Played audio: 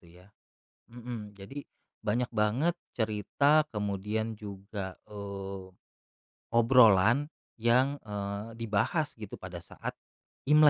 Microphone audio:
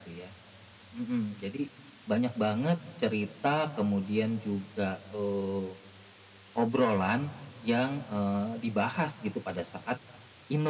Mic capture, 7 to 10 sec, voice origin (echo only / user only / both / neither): echo only